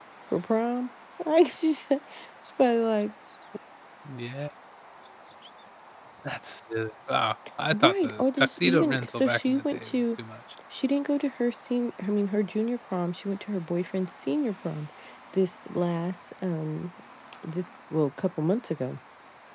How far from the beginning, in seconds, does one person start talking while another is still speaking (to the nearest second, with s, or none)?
8 s